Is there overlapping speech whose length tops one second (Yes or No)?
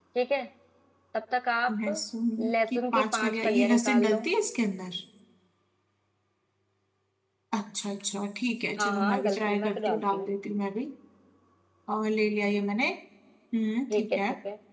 Yes